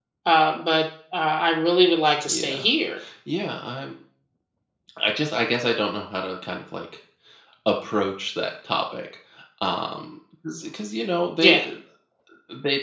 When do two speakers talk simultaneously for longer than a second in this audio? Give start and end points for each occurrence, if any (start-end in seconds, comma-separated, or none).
none